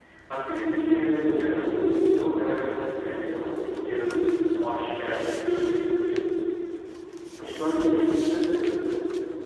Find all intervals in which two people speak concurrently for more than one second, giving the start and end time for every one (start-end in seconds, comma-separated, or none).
none